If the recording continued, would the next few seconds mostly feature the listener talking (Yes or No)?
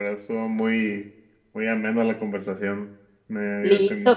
Yes